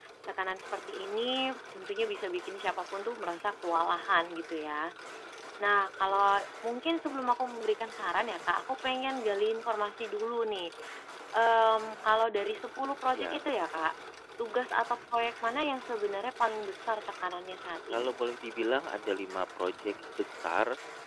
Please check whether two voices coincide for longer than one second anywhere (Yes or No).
No